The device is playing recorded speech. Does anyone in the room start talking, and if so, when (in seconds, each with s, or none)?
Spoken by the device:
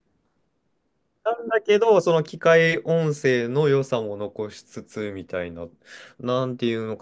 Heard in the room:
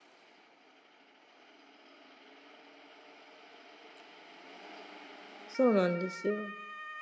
5.5 s